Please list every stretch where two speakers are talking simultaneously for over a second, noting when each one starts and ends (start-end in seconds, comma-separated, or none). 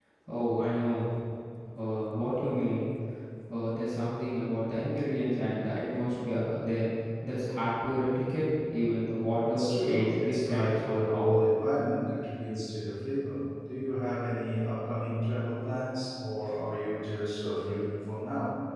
9.5-11.4